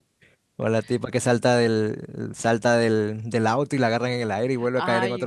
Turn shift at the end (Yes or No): Yes